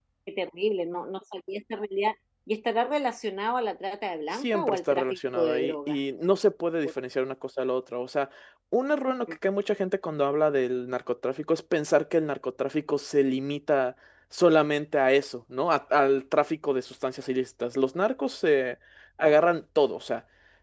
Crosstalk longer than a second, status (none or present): present